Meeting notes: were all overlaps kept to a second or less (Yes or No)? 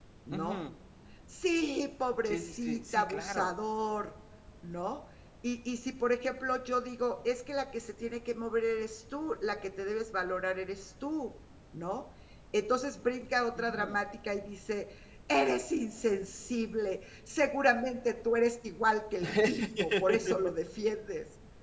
No